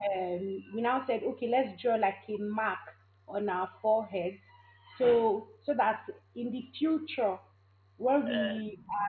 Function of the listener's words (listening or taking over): listening